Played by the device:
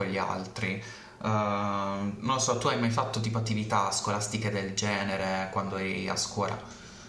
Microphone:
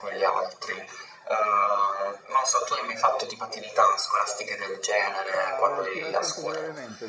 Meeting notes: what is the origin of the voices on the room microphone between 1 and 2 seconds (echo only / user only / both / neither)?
echo only